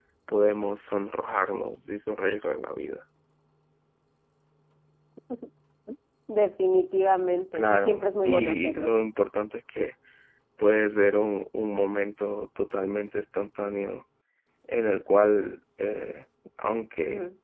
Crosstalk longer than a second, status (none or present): present